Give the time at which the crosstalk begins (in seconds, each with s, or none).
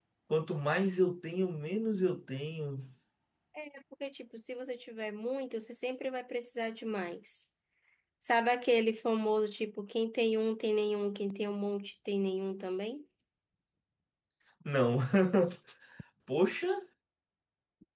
none